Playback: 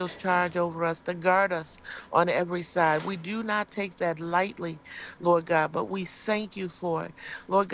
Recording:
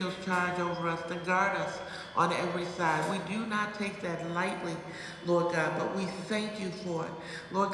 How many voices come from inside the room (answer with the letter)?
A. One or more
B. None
B